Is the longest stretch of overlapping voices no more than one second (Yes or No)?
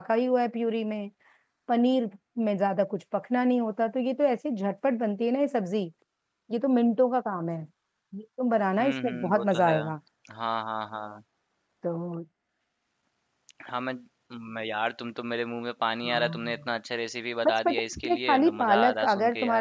No